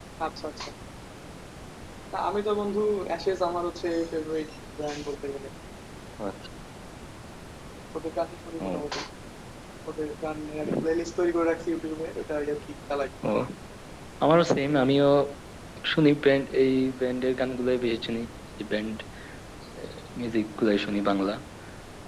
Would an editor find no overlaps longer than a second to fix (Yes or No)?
Yes